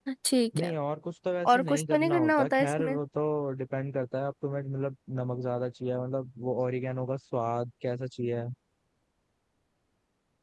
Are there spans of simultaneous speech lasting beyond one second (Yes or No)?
Yes